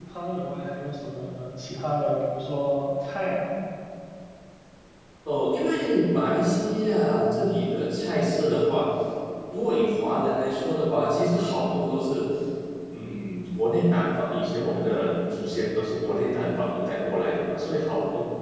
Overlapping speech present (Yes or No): No